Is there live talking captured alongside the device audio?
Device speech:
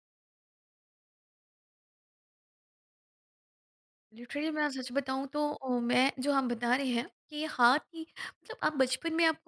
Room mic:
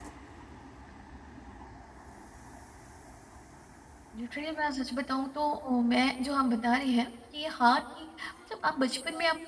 No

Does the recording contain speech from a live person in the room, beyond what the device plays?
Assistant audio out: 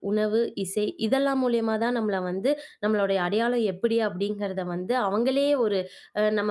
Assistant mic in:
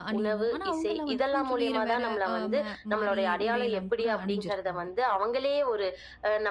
Yes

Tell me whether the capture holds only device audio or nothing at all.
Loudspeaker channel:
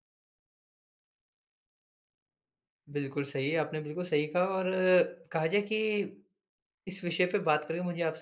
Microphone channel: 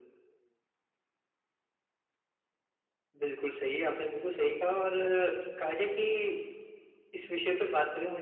Yes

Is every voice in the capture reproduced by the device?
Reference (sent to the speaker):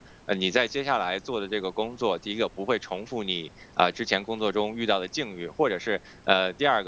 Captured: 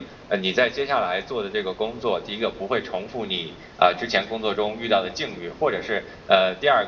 Yes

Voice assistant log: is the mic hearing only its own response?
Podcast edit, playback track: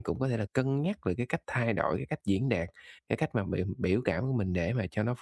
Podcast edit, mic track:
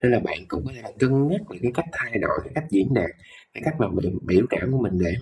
Yes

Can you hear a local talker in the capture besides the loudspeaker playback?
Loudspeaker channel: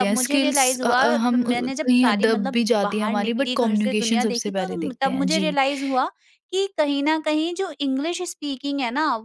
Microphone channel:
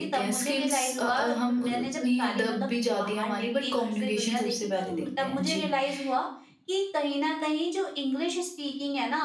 No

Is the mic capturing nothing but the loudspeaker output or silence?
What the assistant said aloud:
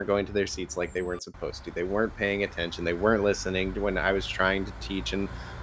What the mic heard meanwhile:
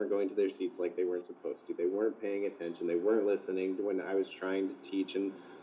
Yes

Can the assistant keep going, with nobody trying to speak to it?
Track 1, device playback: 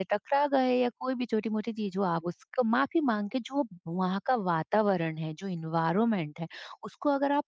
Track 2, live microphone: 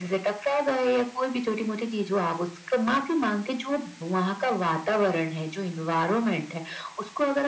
Yes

